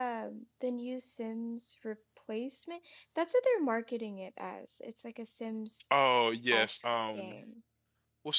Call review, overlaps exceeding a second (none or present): none